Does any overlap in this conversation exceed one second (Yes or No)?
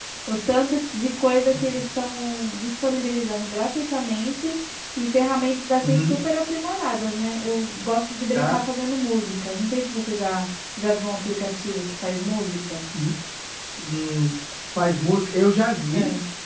No